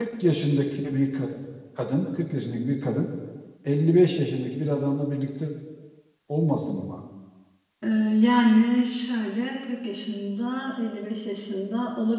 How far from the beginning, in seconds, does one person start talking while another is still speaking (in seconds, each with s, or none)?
none